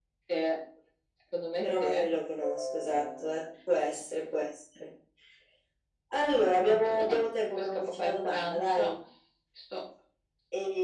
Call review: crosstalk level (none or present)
present